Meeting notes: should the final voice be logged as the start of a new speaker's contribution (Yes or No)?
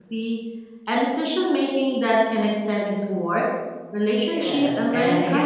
Yes